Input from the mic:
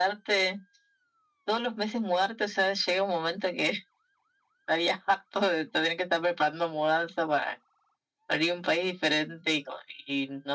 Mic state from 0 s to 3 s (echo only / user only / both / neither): echo only